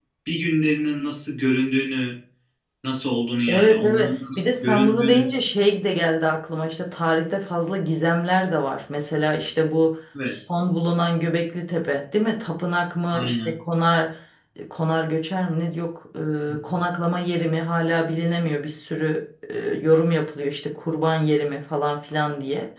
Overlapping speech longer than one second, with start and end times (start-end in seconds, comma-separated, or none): 3.5-5.3